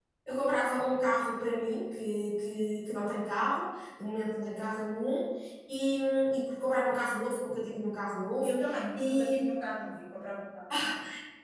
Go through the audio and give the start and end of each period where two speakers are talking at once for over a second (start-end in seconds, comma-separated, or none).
none